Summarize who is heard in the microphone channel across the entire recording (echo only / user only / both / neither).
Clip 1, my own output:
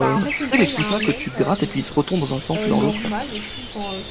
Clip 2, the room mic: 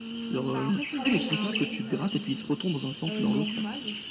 both